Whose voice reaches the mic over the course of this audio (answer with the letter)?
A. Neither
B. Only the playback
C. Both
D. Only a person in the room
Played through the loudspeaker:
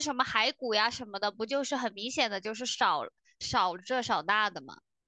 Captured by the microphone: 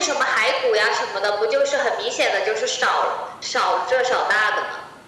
B